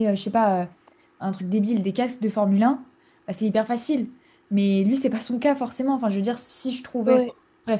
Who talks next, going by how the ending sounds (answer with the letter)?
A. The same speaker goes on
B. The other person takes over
A